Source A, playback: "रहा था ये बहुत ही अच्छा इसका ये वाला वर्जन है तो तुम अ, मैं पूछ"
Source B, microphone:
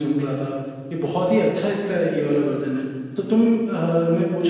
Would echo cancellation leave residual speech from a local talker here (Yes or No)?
No